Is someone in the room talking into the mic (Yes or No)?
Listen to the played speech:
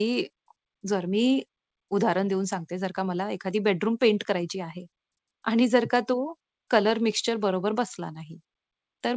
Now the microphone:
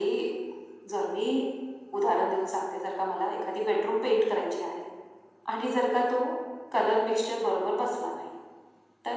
No